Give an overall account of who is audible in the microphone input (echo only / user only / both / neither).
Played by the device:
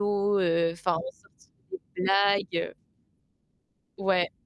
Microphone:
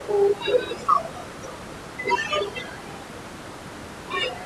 echo only